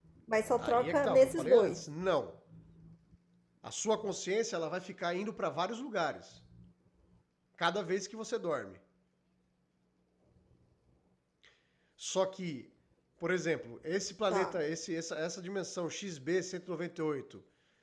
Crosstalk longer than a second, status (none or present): present